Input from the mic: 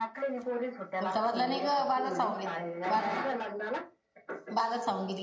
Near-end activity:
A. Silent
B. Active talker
B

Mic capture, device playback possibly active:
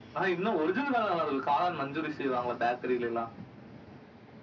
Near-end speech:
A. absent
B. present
A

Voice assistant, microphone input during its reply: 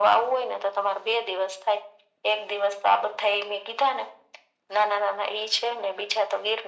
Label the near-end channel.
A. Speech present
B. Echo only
B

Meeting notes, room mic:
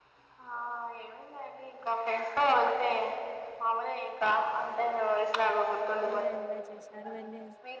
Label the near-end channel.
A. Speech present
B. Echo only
A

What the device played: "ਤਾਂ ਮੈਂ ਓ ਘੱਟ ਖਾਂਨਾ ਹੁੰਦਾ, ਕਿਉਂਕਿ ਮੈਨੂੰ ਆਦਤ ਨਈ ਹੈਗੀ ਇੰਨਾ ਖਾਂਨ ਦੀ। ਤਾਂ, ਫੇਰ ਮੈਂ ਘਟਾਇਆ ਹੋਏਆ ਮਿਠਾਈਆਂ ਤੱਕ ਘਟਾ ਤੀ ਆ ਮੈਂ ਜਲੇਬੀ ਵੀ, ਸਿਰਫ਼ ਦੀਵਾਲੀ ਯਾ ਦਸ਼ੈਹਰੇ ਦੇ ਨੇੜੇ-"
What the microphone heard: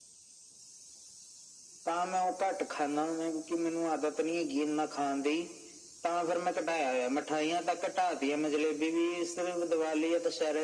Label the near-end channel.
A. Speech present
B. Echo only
B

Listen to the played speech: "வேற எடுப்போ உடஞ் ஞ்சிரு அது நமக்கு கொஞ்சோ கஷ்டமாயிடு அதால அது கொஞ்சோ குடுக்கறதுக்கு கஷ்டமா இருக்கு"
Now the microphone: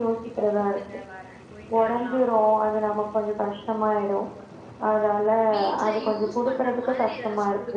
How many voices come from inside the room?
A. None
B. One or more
B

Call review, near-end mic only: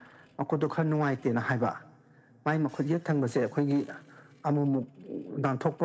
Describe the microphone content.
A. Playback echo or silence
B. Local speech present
A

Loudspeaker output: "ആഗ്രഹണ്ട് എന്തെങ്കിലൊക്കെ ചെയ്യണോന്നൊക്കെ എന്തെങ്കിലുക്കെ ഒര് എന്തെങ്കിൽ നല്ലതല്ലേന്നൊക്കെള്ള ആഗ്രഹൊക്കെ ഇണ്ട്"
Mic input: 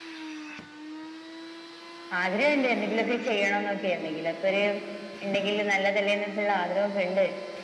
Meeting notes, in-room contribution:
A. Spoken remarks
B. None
B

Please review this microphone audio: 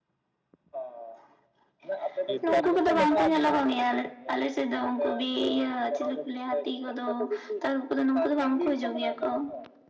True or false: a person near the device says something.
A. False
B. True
B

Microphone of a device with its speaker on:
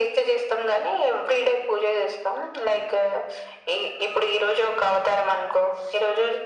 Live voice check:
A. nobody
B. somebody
A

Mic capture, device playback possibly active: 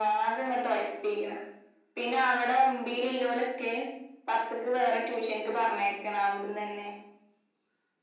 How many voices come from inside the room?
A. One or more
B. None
B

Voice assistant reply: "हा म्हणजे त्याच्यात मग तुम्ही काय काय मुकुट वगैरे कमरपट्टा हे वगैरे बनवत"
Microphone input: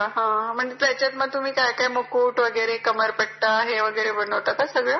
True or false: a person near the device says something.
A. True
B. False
B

